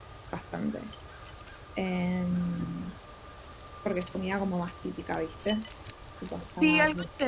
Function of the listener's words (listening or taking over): taking over